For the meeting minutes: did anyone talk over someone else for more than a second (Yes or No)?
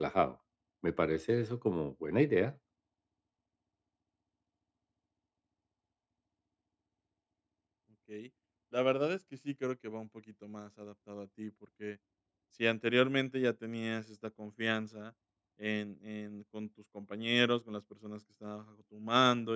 No